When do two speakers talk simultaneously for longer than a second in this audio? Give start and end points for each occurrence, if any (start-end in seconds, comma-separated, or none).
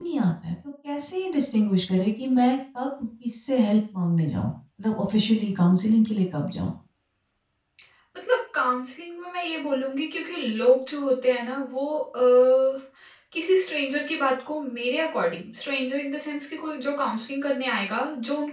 none